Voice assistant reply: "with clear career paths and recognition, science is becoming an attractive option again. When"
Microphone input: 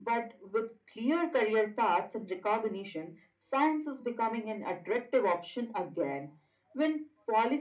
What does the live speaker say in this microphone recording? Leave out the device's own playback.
none

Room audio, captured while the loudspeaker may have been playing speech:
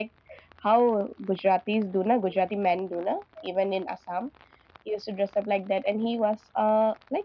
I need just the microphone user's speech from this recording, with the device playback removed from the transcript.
none

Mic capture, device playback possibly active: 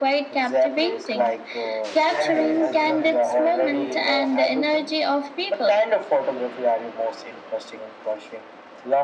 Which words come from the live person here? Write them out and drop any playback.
Exactly, and sometimes I feel like

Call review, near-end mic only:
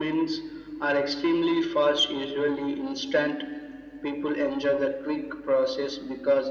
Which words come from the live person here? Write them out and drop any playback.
none

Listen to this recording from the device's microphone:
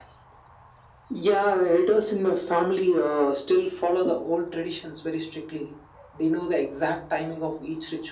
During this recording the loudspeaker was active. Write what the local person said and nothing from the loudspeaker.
none

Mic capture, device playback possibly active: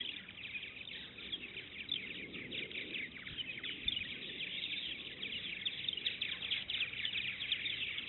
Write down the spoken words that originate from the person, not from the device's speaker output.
none

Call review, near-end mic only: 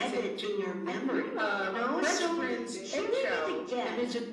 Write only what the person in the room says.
I feel like covers can be a bit

